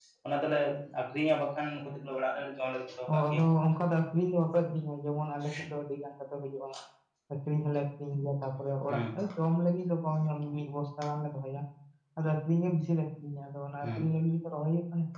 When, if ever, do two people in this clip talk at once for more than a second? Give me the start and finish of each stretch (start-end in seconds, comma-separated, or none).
none